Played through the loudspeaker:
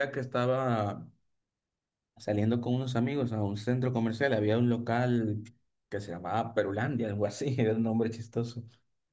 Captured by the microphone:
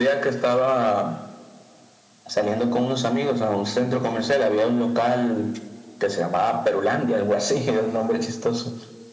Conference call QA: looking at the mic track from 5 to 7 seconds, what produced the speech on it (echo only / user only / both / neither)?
echo only